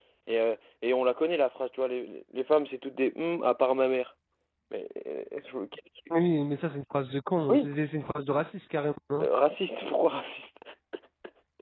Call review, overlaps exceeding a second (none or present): none